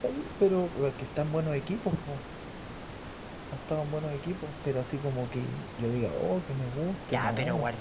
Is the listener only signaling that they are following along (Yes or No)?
No